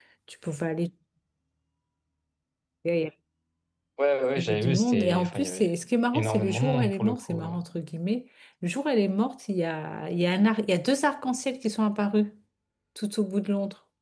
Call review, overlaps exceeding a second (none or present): present